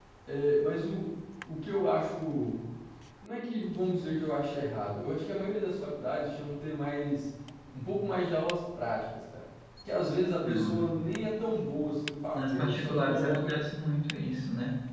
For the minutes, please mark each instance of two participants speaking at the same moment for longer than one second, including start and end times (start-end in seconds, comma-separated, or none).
12.3-13.6